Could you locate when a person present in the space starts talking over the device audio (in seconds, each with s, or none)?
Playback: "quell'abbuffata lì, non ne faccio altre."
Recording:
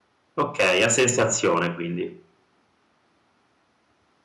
0.4 s